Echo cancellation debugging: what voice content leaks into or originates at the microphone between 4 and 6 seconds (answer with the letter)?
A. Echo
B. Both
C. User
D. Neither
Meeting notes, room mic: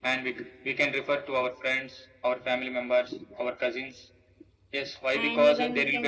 B